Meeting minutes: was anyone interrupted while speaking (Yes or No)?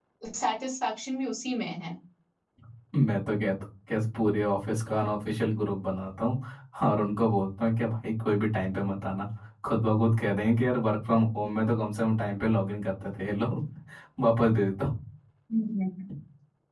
No